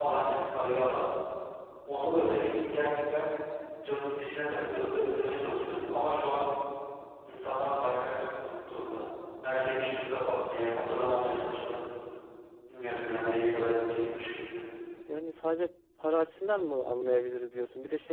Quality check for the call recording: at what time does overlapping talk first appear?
none

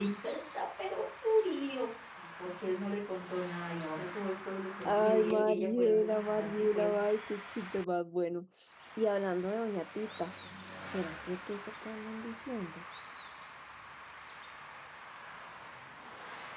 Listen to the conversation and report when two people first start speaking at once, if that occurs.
5 s

